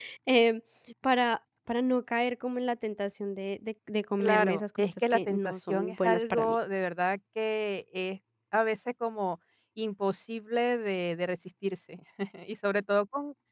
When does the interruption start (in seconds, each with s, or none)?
4.2 s